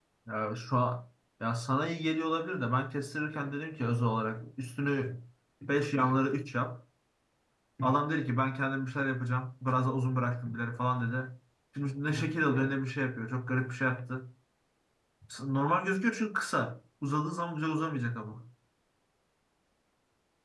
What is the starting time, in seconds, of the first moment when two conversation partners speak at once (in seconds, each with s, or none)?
none